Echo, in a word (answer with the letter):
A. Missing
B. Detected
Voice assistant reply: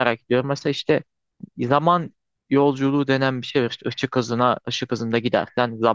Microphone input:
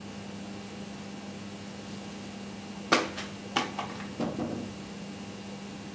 A